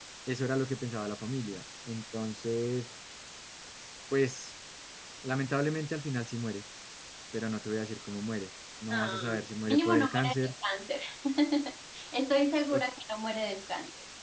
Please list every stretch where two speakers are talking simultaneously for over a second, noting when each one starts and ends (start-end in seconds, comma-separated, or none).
8.9-10.5